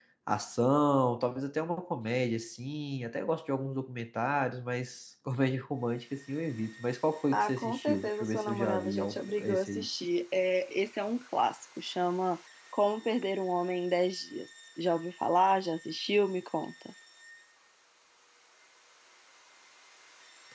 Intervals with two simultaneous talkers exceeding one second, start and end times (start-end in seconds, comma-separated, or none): 7.3-9.9